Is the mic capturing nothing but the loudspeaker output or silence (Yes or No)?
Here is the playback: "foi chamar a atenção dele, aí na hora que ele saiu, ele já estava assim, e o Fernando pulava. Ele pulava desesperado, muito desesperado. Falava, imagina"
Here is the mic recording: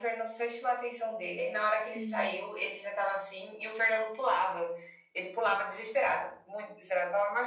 No